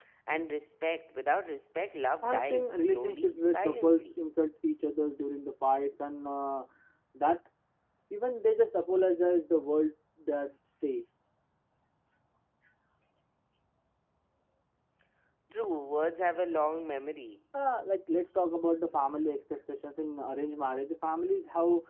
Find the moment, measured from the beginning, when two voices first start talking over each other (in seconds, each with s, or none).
2.2 s